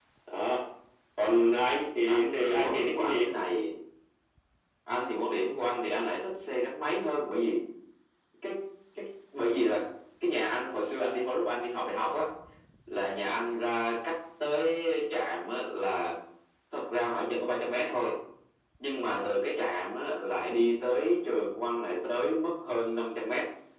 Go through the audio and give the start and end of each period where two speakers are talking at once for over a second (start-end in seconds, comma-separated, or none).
2.0-3.2